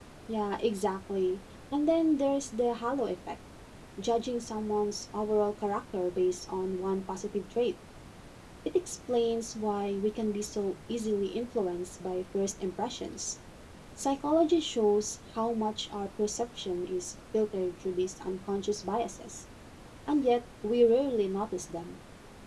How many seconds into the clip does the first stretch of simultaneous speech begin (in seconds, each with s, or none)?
none